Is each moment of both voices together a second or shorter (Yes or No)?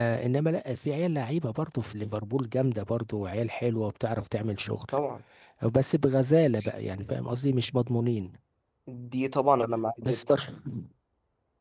Yes